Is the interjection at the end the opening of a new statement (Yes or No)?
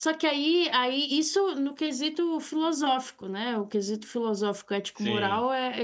No